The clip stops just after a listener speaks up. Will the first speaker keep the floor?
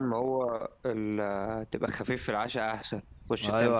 No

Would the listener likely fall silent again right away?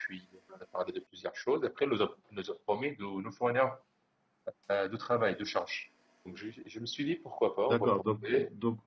No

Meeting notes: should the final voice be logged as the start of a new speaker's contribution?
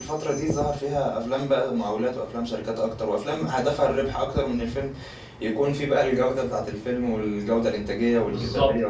Yes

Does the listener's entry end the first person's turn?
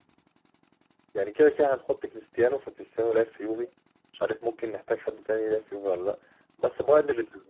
No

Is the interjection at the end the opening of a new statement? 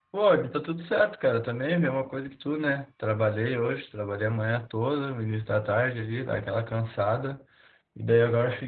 No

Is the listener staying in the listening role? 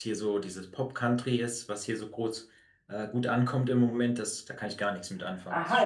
No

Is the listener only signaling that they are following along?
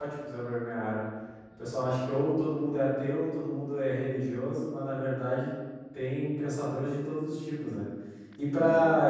Yes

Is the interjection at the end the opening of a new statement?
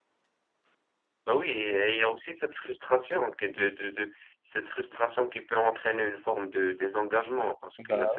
No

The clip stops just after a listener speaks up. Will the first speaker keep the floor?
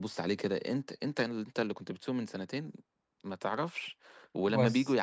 Yes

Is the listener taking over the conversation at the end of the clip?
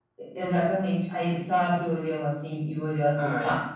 Yes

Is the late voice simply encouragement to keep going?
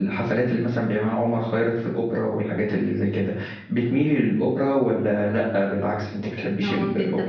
No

